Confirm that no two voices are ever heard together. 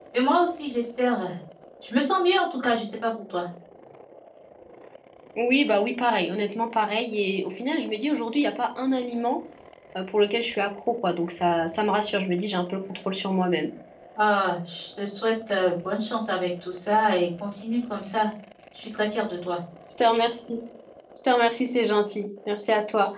Yes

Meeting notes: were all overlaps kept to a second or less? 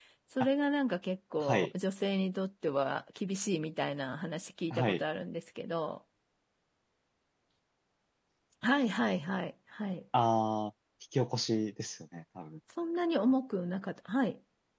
Yes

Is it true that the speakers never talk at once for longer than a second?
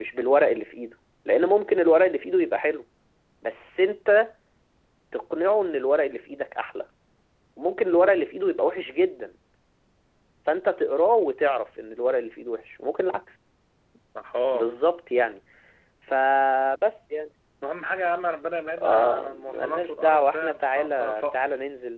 No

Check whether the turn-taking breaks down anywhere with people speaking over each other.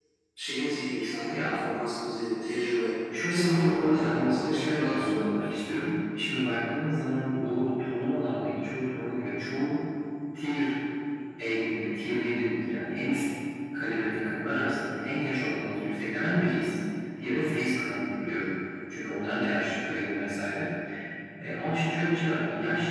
Yes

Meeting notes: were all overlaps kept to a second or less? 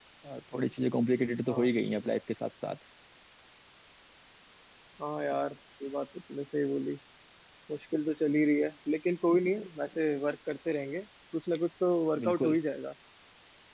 Yes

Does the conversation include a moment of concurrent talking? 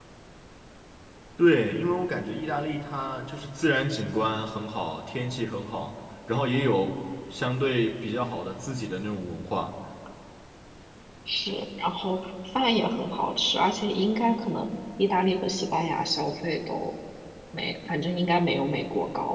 No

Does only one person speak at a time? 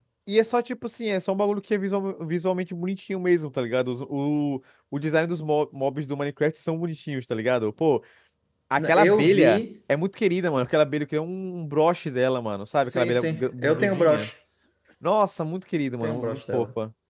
No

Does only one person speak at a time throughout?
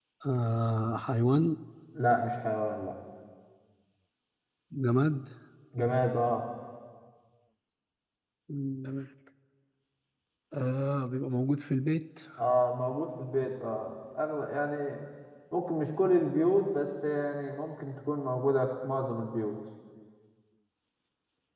Yes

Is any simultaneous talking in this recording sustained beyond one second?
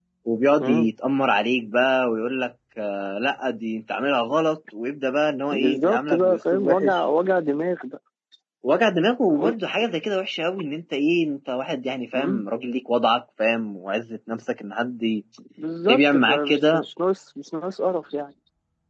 Yes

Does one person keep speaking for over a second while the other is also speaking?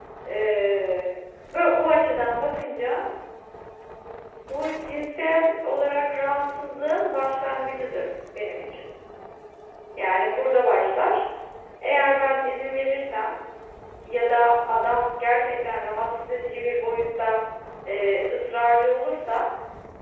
No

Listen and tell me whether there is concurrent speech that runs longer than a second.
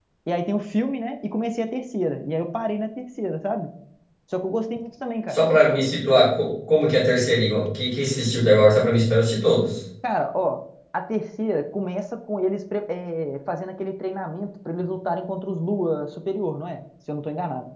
No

